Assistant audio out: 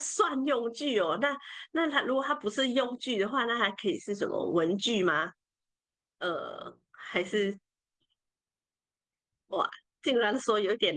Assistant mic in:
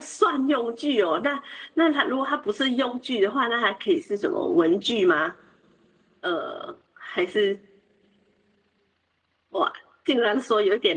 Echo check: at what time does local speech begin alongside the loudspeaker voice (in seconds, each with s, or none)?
none